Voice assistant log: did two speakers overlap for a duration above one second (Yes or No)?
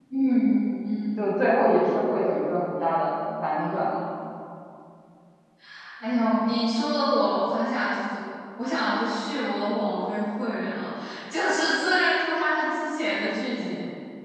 No